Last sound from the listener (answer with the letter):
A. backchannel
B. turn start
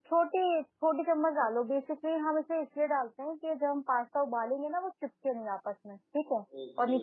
B